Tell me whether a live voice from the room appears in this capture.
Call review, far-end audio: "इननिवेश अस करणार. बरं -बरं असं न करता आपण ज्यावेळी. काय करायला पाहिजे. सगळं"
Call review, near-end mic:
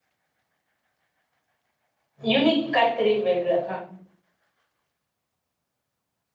Yes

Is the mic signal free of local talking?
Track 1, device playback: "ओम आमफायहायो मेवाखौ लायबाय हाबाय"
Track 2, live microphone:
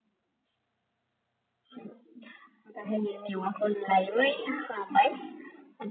Yes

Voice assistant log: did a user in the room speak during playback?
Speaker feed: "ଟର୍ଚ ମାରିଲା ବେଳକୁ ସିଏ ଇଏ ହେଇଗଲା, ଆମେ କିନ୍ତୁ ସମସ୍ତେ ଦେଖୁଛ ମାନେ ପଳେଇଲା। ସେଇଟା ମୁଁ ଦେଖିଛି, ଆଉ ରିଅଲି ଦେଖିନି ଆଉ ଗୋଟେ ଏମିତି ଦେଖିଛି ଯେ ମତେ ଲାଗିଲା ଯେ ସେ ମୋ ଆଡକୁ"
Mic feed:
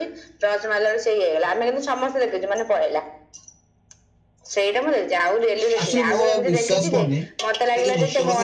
Yes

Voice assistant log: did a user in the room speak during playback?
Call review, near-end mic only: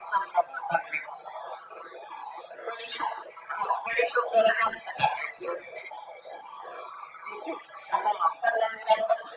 No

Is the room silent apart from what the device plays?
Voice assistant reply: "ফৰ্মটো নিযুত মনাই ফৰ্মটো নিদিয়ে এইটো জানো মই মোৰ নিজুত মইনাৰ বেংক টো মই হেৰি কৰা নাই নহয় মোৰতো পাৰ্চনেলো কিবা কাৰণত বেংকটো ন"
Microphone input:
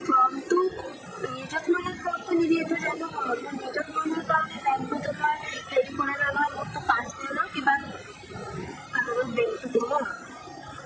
Yes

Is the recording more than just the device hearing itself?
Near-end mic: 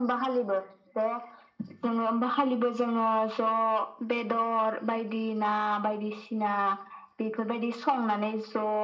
No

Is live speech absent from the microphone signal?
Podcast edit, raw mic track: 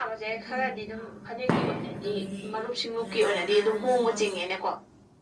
No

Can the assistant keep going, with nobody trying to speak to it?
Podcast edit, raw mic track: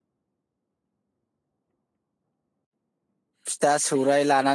No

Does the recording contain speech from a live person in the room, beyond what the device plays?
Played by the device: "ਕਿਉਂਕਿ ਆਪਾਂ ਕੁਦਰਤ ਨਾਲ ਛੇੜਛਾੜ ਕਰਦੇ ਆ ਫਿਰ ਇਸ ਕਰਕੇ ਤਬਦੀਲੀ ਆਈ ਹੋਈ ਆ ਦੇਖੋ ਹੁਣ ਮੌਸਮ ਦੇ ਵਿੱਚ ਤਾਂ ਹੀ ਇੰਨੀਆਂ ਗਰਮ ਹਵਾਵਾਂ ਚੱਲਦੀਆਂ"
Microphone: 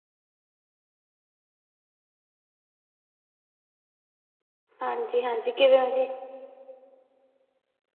Yes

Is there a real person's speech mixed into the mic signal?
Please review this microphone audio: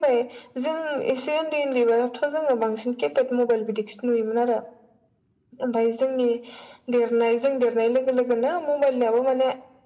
No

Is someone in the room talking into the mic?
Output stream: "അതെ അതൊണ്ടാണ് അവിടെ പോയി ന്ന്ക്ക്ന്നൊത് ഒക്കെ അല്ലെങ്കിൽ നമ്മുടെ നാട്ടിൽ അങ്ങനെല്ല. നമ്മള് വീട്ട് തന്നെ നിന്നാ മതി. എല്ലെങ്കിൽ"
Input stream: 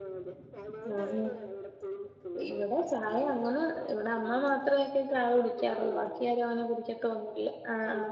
Yes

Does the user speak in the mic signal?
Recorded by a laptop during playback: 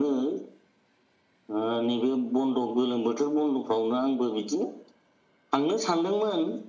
No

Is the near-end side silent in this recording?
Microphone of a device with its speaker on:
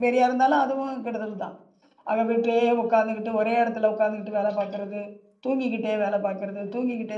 No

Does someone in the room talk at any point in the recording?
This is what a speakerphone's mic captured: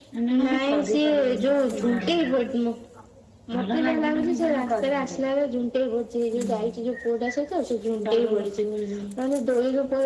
No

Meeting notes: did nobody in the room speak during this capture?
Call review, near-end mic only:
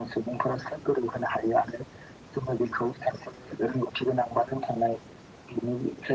Yes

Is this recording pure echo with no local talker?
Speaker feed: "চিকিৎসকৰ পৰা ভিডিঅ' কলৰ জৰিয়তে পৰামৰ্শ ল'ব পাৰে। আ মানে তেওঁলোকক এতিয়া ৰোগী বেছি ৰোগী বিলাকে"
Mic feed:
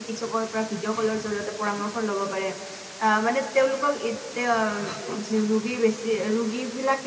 Yes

